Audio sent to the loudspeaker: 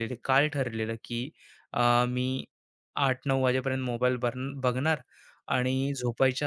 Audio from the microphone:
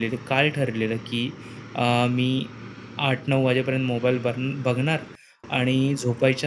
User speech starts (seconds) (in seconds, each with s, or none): none